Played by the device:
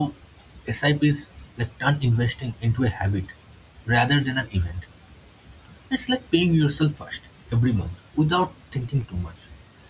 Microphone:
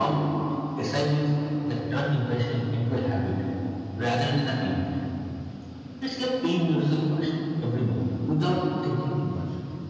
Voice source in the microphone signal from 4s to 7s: echo only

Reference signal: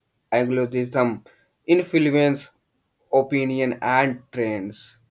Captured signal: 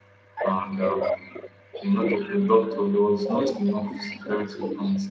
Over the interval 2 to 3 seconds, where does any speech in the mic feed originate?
both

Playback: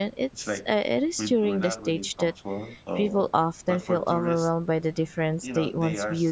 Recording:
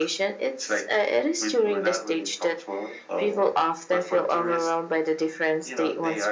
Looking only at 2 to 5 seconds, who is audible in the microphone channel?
echo only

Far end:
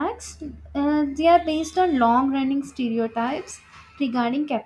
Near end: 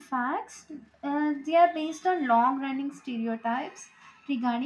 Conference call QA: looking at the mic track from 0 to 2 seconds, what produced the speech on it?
echo only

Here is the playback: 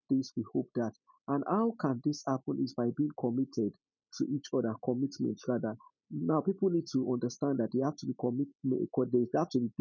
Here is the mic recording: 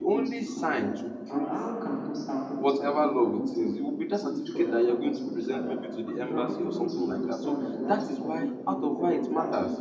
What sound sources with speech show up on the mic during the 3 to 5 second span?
both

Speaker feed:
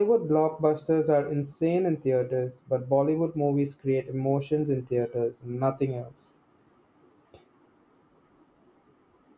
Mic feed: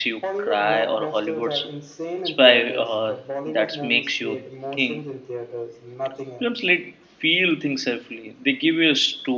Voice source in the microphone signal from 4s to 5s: both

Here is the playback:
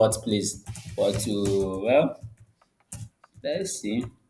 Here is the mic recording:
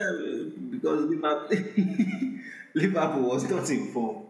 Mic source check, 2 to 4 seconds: user only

